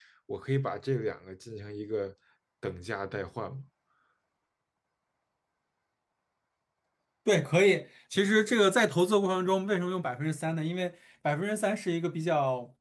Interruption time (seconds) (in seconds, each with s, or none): none